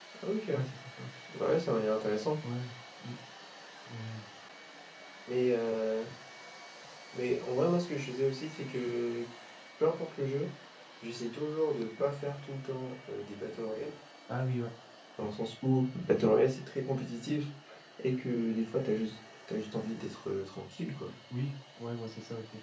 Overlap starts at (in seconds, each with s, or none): none